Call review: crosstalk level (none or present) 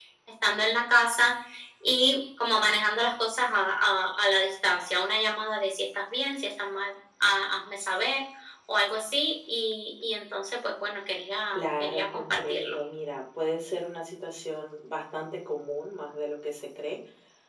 present